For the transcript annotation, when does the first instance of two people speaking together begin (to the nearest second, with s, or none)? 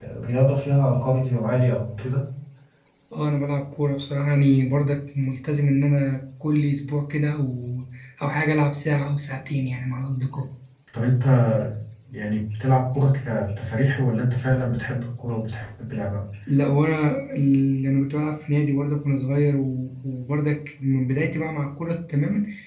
none